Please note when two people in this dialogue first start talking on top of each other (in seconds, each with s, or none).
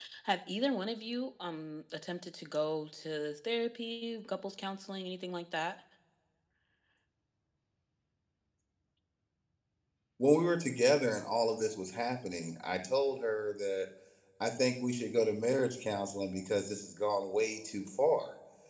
none